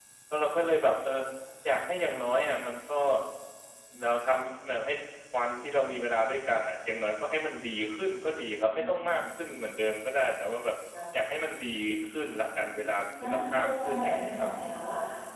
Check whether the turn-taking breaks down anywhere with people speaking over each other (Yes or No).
Yes